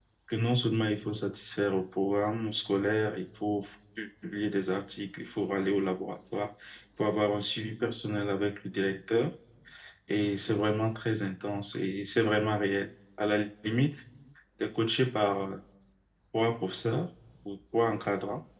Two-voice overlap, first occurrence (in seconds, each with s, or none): none